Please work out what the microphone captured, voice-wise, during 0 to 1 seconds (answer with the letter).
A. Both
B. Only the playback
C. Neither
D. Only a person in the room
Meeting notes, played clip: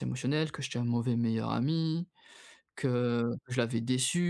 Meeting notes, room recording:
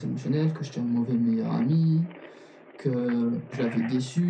B